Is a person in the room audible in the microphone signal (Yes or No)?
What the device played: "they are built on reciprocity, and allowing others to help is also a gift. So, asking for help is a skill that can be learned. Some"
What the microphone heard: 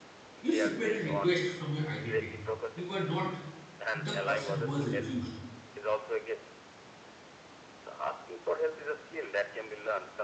Yes